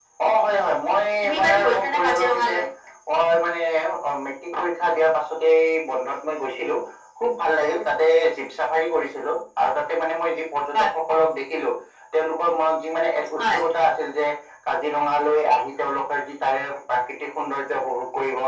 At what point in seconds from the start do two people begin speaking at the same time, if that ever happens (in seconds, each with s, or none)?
1.2 s